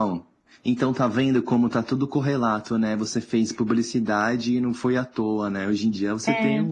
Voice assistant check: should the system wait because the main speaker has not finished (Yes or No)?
Yes